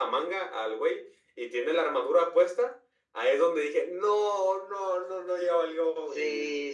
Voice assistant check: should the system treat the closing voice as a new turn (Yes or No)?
Yes